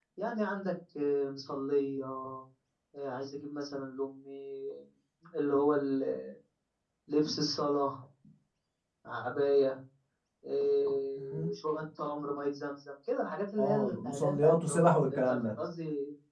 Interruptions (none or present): present